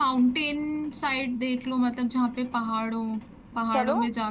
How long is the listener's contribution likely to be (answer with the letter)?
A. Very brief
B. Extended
A